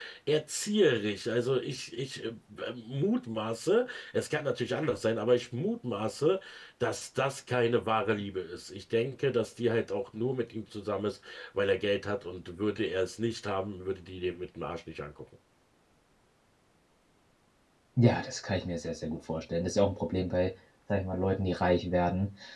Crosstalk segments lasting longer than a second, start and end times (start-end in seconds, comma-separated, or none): none